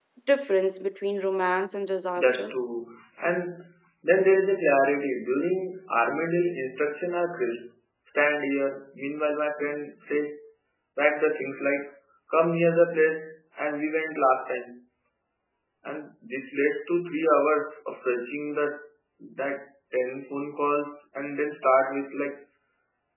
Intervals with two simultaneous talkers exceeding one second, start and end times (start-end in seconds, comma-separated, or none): none